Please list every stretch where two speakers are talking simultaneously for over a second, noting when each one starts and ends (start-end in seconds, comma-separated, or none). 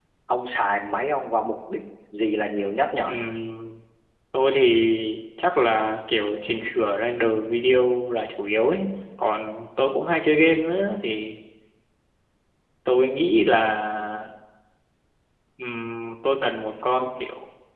none